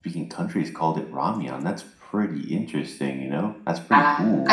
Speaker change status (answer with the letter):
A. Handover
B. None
A